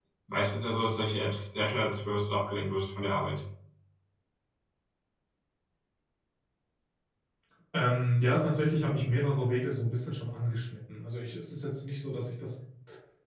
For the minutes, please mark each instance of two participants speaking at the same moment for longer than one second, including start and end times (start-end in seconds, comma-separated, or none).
none